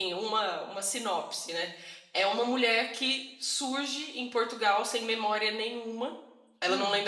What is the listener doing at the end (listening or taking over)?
listening